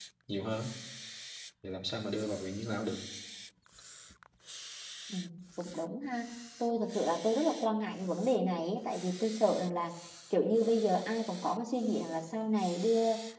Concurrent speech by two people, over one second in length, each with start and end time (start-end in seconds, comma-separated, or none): none